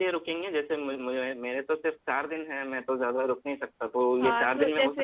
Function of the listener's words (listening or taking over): taking over